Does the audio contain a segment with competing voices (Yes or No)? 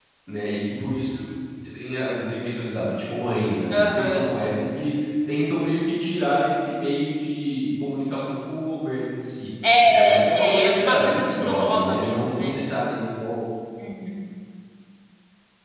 Yes